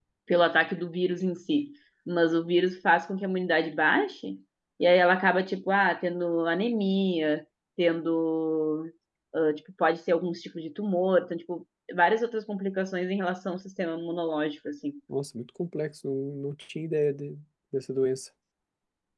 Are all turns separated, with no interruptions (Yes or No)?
Yes